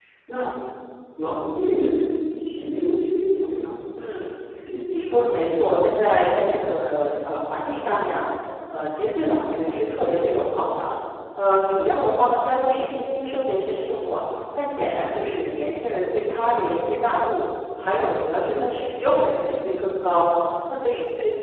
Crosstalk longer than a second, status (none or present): present